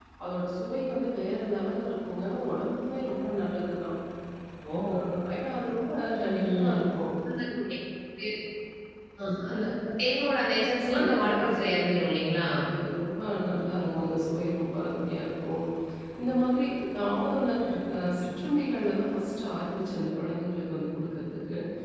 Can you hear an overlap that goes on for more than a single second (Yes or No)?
Yes